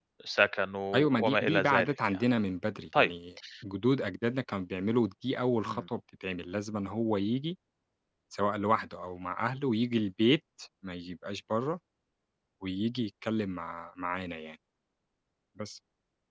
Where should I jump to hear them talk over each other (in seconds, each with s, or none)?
0.9 s